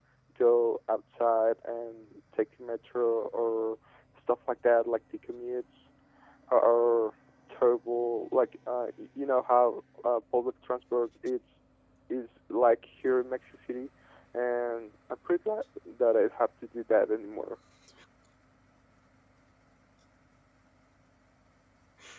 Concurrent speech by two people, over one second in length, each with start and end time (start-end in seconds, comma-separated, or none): none